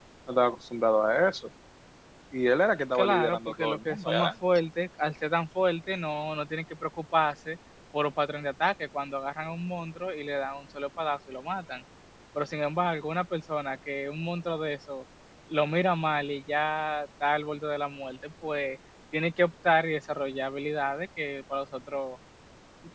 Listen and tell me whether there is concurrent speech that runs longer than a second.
Yes, from 3.0 s

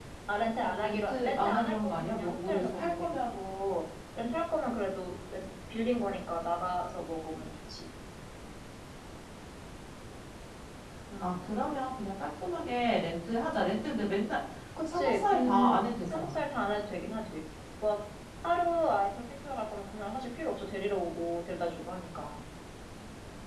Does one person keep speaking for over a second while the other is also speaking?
Yes, from 0.6 s

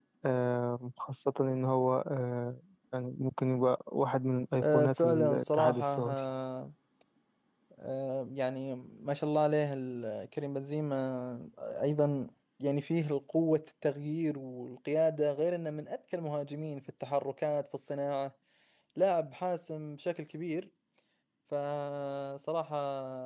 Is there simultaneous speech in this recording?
Yes, from 4.6 s

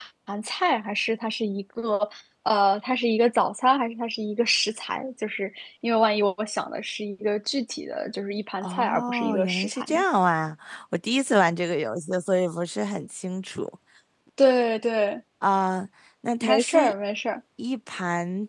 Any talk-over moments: Yes, from 8.6 s

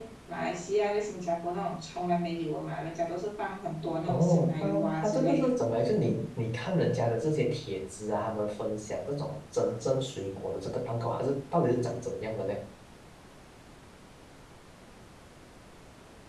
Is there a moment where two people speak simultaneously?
Yes, from 4.0 s

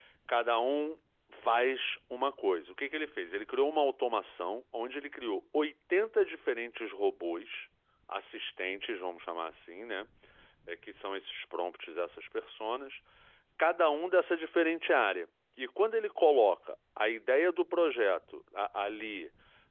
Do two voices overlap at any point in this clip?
No

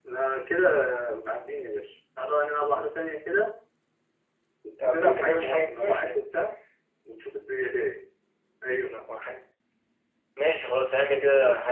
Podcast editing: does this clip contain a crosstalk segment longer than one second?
Yes, from 4.8 s

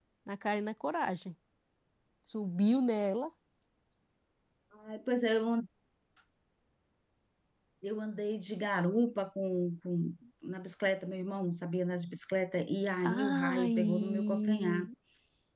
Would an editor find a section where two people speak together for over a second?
Yes, from 13.0 s

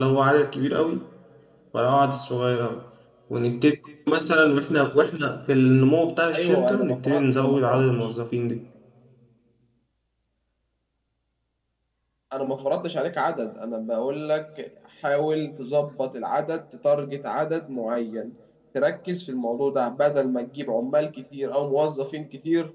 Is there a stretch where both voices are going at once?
Yes, from 6.3 s

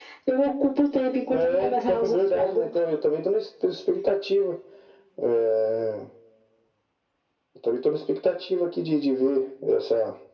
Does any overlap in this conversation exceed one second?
Yes, from 1.3 s

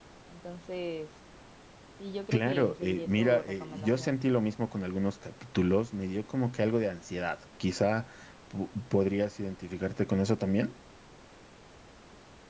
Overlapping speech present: Yes, from 2.3 s

